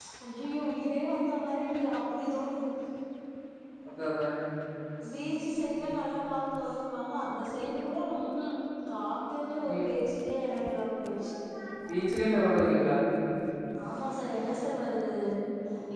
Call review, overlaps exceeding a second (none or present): none